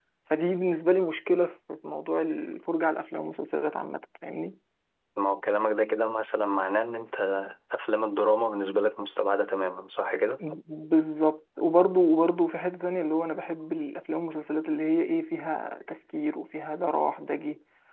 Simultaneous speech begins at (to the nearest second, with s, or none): none